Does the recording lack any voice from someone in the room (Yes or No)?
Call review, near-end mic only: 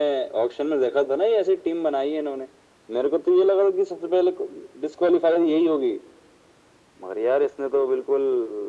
Yes